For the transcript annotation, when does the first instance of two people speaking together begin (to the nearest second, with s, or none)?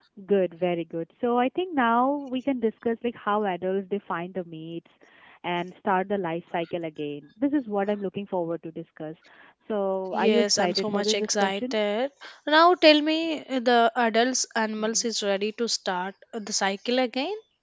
10 s